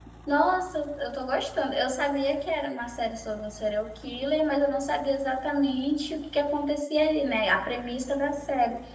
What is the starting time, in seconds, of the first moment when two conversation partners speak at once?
none

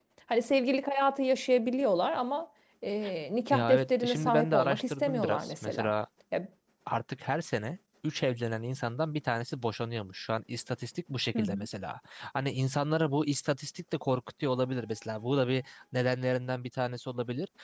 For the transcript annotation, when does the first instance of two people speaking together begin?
3.5 s

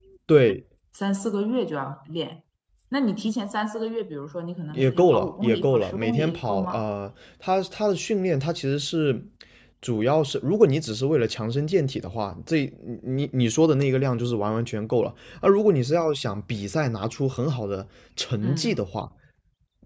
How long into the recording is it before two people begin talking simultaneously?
4.7 s

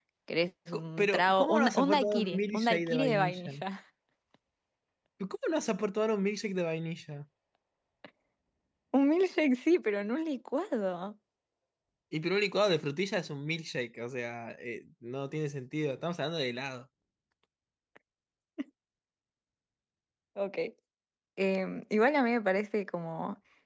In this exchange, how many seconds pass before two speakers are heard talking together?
0.7 s

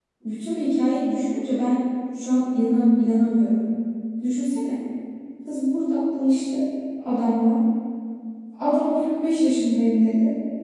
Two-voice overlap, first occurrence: none

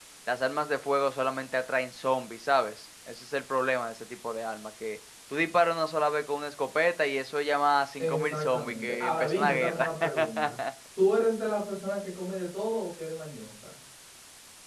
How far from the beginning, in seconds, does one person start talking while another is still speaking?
8.0 s

